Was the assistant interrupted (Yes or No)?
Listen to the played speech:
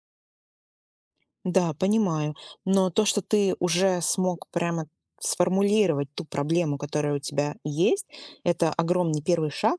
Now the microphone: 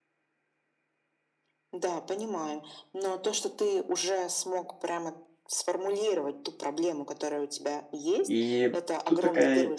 Yes